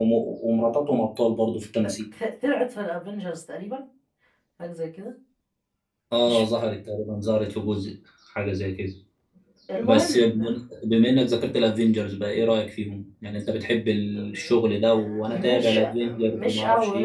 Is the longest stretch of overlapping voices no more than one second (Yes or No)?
No